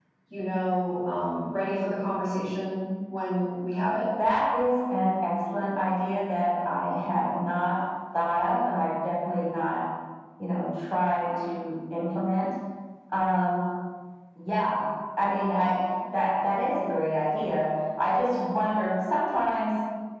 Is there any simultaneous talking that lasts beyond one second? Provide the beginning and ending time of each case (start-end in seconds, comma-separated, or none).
none